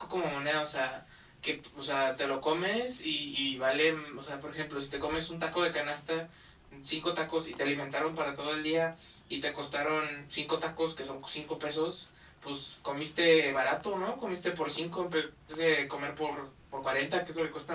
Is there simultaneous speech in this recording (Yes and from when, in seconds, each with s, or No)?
No